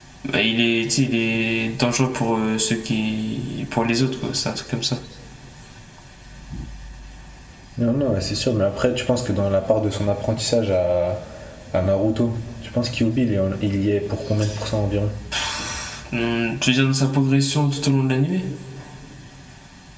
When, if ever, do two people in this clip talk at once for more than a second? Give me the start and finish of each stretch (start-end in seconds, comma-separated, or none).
none